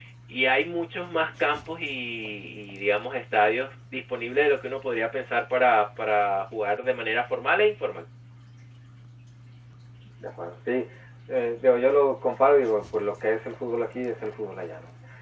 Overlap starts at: none

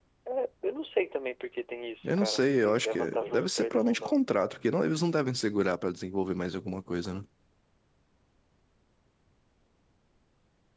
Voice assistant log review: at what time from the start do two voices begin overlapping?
2.0 s

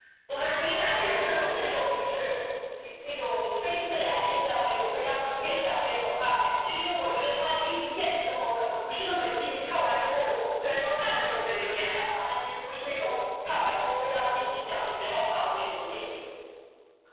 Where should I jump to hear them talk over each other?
0.6 s

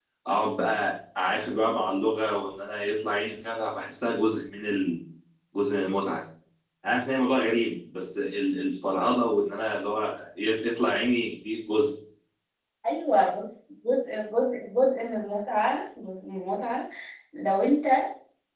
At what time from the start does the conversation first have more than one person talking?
none

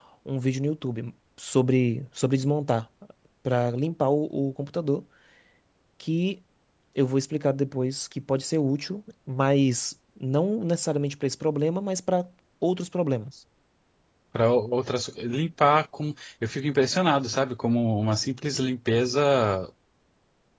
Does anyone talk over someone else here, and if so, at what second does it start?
none

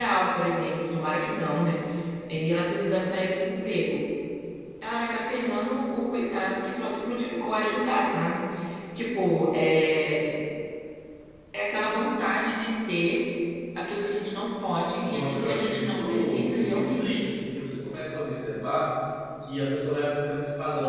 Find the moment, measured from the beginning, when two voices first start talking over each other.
15.1 s

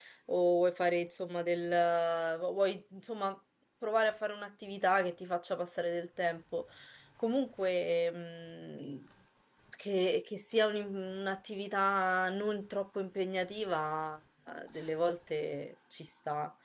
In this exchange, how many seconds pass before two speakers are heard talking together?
none

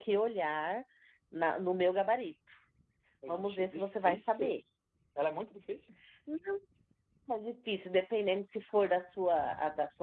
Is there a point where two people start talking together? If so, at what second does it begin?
3.3 s

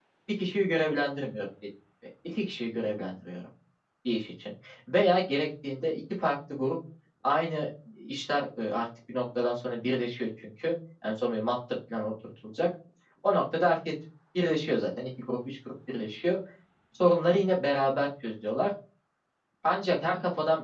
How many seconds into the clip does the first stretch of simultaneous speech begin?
none

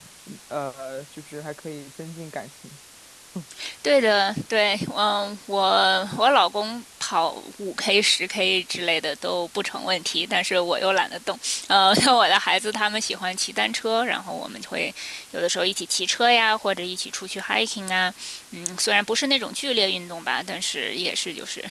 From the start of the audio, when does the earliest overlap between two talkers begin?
none

